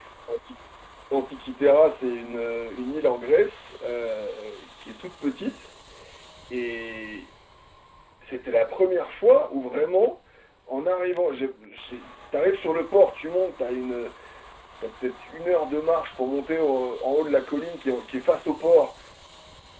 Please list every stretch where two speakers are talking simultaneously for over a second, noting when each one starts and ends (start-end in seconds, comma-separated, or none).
none